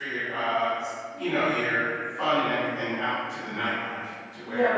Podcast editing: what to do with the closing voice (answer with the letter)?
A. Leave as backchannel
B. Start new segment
B